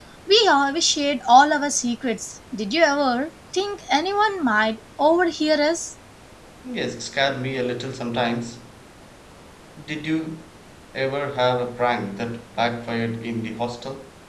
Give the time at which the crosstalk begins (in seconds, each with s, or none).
none